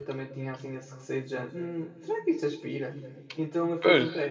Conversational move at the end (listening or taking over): listening